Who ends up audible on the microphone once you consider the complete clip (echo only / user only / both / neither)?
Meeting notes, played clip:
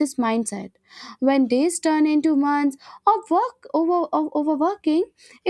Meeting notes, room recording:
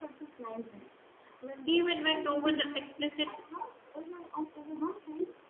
both